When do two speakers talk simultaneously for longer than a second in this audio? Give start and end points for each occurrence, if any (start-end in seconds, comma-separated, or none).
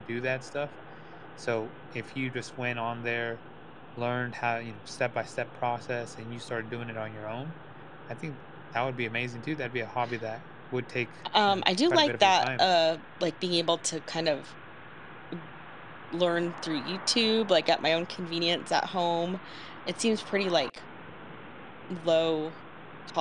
11.5-12.7